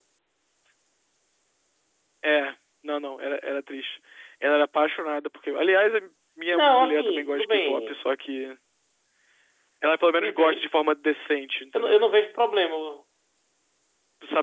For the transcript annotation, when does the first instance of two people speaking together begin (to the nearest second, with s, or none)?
7 s